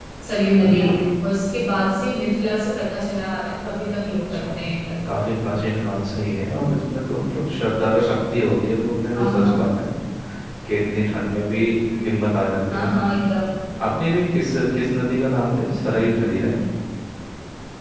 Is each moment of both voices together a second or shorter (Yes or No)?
Yes